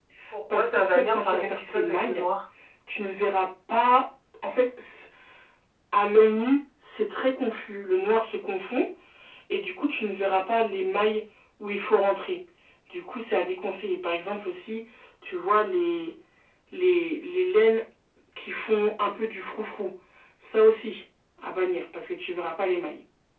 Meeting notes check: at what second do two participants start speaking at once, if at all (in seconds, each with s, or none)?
0.5 s